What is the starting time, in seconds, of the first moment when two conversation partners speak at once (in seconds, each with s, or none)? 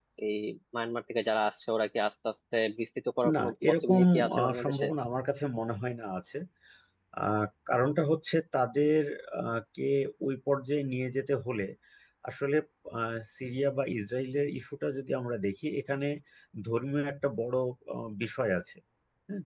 3.2 s